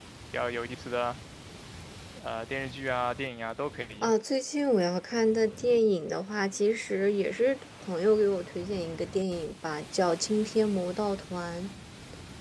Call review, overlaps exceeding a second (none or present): none